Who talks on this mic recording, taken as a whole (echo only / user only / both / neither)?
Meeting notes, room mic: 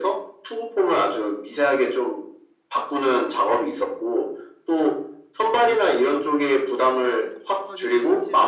both